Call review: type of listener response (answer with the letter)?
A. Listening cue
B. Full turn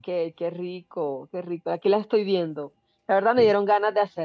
A